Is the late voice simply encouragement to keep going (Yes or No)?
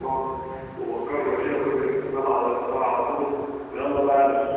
Yes